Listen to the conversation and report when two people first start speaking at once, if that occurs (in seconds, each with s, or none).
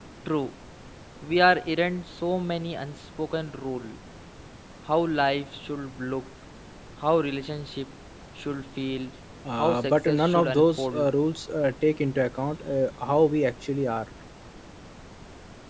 9.6 s